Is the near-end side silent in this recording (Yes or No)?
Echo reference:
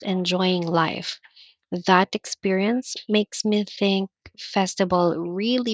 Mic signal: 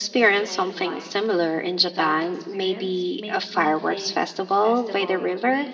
No